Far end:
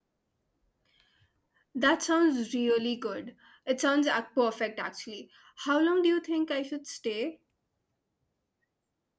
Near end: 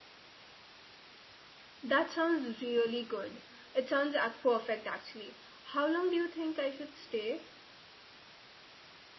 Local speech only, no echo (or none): none